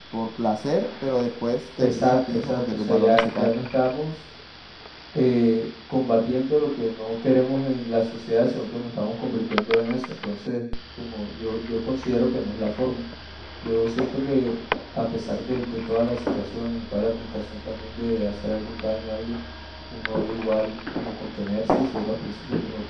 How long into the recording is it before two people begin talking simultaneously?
2 s

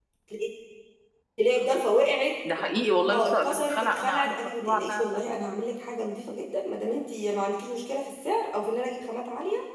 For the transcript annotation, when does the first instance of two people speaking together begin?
3 s

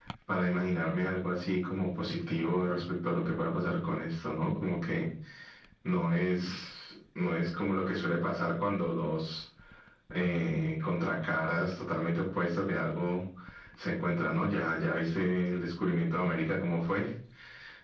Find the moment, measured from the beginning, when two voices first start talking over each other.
none

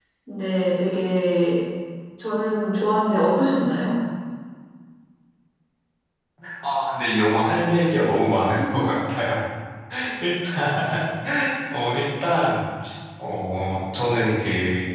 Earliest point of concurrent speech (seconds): none

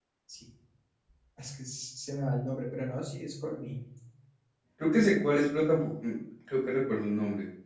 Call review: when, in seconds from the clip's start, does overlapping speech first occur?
none

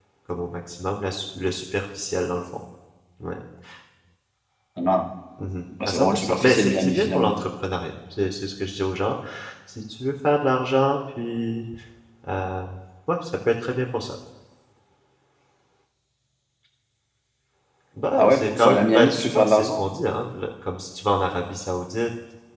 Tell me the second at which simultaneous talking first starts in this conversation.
6 s

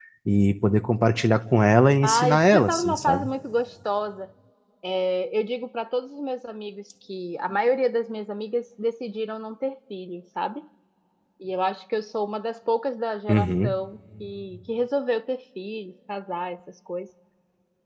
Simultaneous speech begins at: 2 s

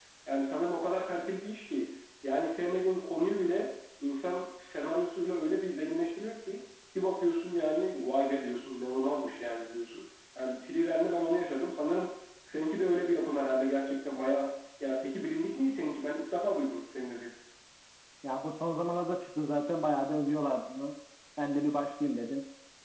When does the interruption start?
none

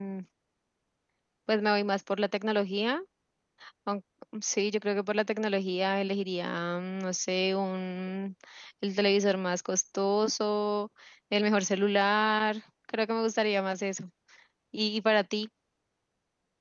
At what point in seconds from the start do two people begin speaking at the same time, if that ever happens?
none

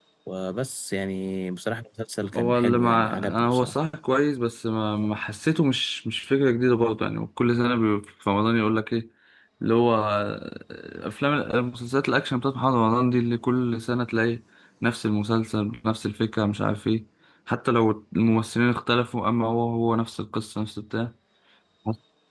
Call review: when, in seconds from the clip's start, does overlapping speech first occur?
2 s

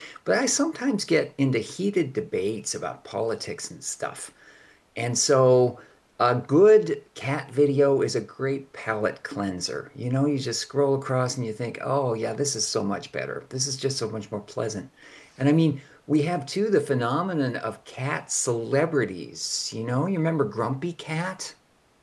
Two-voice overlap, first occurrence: none

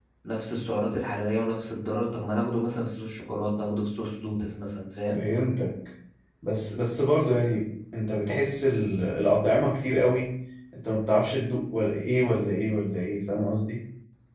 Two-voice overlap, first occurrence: none

